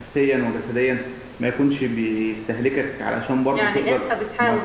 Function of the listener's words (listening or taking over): taking over